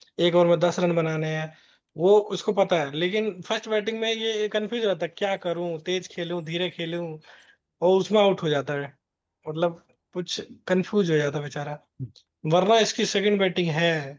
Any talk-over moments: No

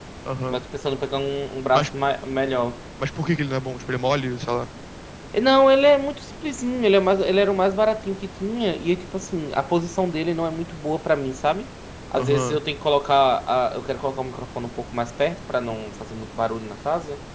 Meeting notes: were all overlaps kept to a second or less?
Yes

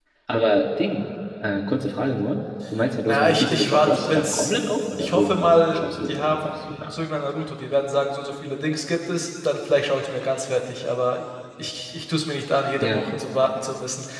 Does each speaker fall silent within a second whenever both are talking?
No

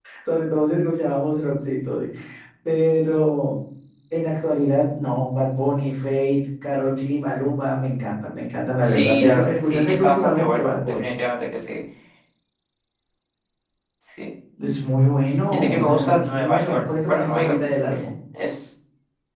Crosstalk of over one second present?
Yes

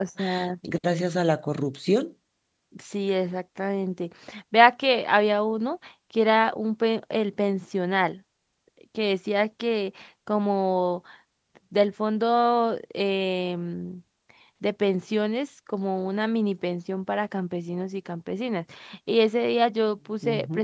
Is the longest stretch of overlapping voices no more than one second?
Yes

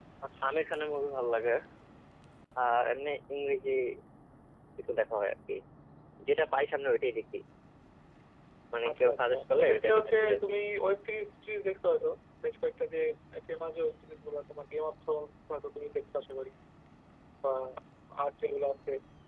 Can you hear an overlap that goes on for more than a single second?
Yes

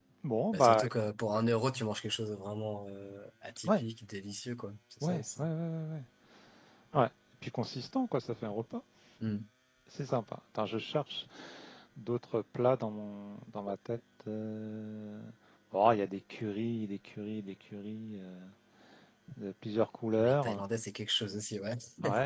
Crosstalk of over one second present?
No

